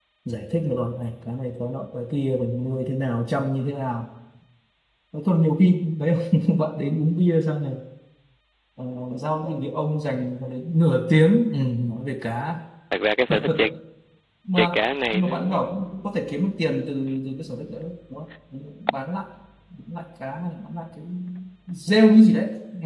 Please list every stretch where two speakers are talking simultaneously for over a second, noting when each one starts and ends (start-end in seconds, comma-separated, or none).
none